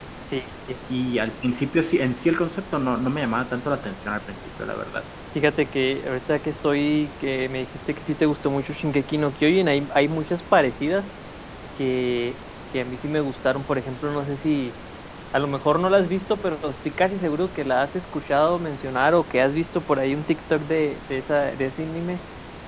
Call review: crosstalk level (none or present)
none